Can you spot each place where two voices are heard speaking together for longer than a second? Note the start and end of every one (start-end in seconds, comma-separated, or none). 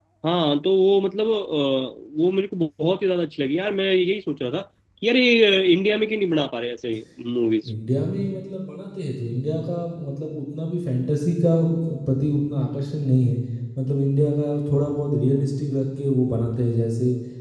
none